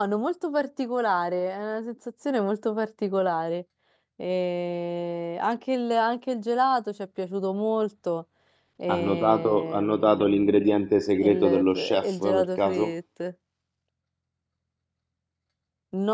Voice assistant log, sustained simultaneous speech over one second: present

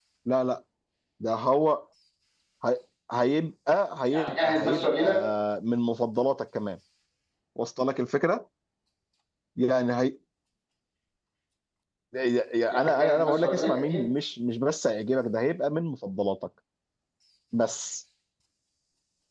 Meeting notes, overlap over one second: present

